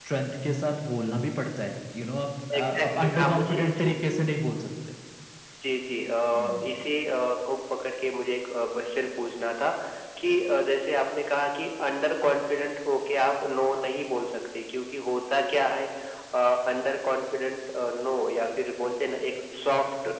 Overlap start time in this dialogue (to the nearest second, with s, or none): 3 s